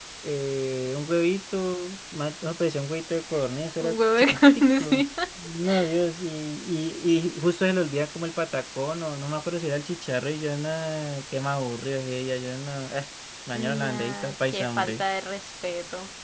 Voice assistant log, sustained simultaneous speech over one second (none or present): present